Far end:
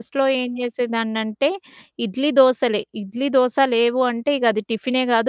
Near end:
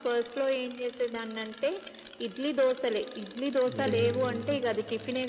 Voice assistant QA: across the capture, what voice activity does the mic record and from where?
both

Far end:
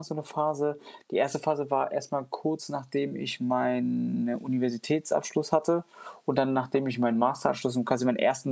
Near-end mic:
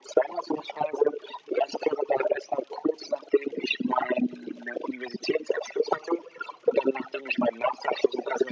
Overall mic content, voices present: echo only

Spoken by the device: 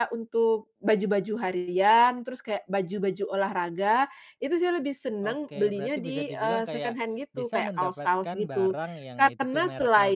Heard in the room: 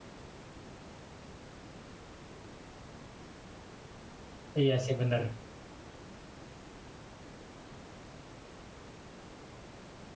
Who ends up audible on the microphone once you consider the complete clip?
user only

